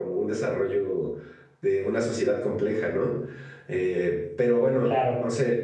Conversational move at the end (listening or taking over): listening